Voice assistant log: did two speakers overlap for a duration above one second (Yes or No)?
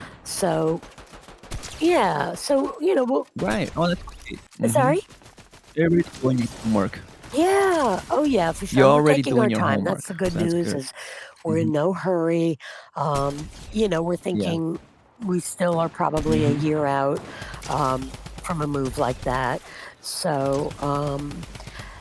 Yes